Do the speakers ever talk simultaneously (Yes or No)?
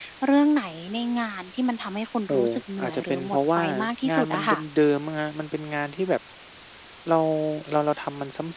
Yes